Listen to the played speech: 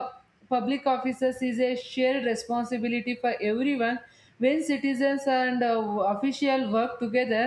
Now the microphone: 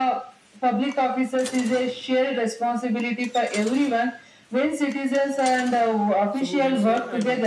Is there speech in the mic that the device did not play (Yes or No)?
Yes